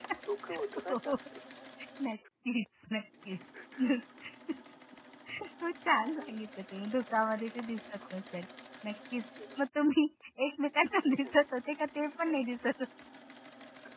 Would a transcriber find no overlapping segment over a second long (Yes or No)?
Yes